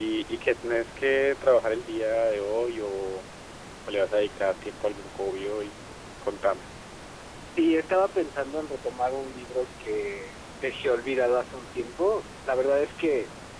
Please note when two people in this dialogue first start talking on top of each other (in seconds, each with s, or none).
none